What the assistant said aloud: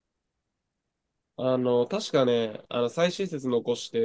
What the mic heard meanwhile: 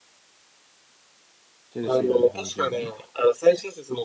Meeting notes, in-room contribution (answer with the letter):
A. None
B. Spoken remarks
B